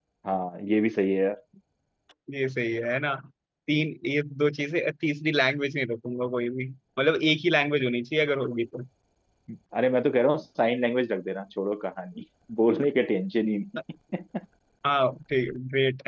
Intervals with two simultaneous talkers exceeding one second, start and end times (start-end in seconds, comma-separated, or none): none